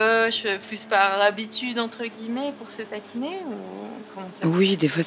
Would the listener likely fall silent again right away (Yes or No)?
No